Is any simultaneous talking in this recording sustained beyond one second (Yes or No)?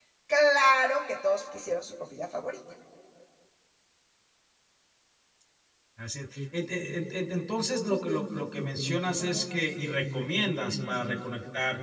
No